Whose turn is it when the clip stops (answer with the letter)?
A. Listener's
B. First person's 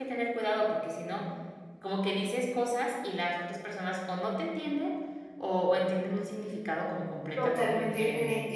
A